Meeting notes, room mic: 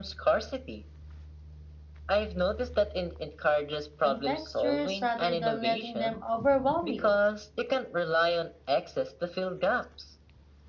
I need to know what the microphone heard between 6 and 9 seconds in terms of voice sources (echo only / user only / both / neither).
both